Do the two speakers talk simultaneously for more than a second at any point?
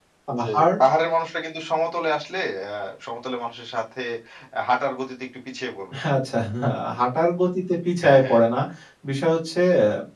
No

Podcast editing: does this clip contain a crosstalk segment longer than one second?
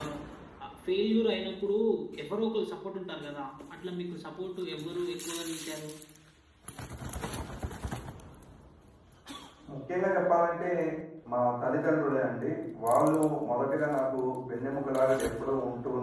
No

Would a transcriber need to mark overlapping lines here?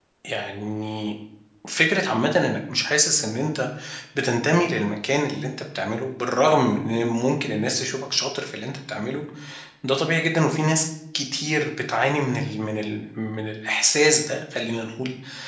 No

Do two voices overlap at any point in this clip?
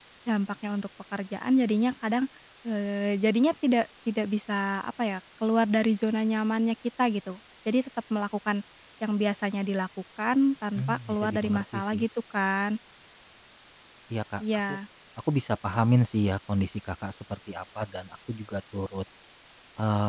Yes, from 10.8 s

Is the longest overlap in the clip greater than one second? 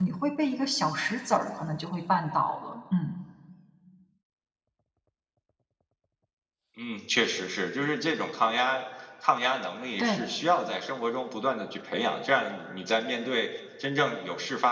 No

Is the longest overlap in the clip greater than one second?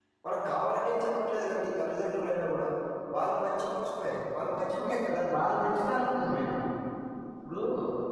Yes, from 4.6 s

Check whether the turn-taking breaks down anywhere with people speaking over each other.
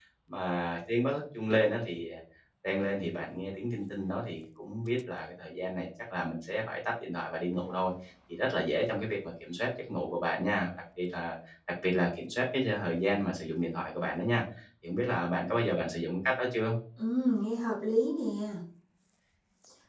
No

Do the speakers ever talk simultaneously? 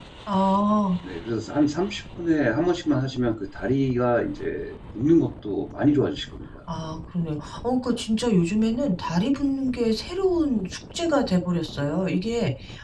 No

